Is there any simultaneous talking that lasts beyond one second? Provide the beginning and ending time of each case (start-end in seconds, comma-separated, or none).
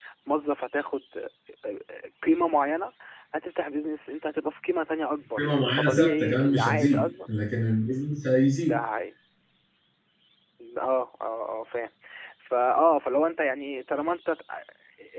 5.4-7.1